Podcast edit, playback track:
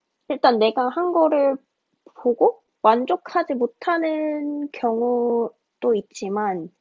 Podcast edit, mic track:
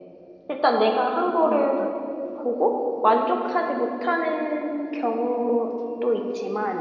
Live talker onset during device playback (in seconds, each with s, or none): 1.4 s